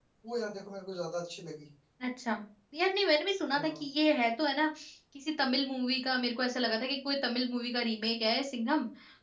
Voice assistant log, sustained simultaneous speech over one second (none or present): none